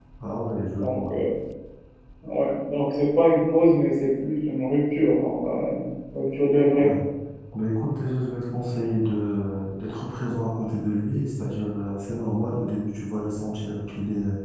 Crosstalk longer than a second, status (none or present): none